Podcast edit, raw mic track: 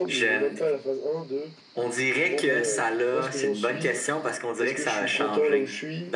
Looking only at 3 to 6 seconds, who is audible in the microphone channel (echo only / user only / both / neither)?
both